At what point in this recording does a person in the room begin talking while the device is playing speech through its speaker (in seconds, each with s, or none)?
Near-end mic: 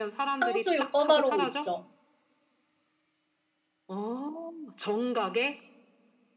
0.4 s